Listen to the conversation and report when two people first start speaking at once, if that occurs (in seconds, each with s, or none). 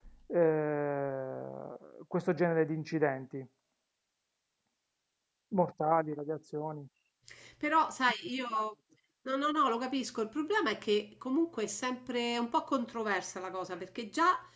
none